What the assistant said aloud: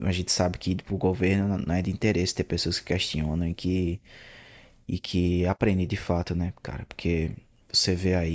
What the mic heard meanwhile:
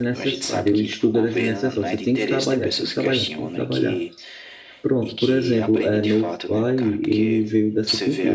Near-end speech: present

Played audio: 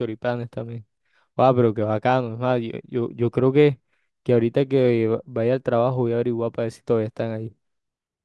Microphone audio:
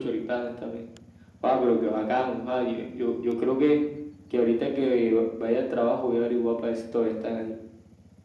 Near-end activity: none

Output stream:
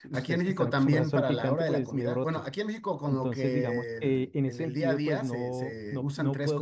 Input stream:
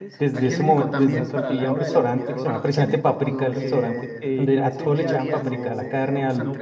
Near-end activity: present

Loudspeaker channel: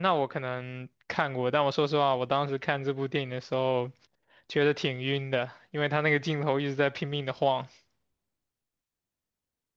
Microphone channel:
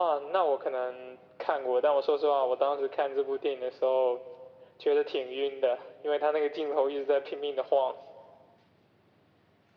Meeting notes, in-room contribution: none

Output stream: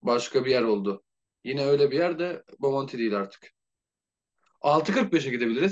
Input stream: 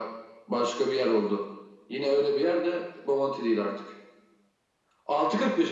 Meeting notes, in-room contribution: none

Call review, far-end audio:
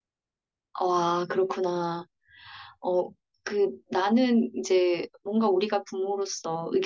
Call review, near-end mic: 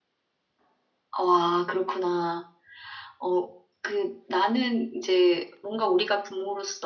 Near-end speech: none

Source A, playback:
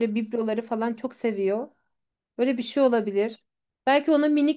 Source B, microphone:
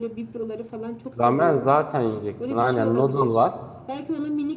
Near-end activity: present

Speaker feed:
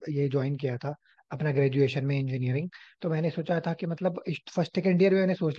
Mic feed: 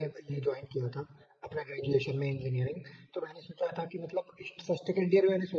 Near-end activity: none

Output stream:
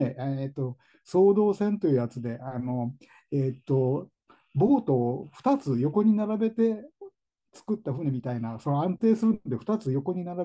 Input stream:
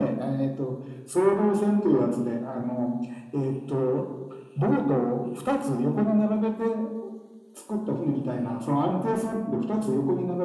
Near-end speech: none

